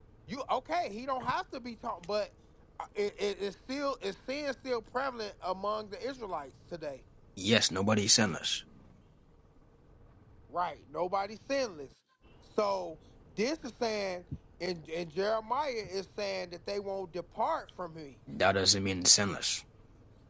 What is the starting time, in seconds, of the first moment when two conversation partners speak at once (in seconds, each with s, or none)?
none